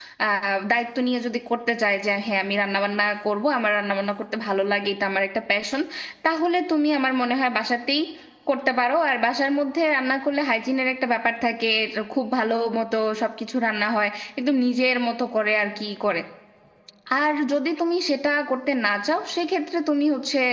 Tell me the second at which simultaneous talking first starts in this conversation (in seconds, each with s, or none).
none